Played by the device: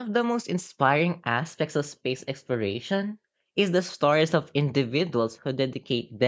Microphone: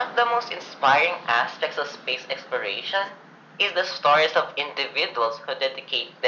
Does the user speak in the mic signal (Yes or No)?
No